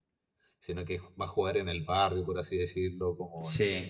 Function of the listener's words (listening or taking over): listening